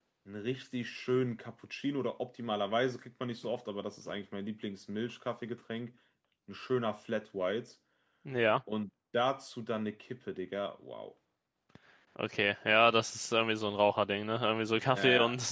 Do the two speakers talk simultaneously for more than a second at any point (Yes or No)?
No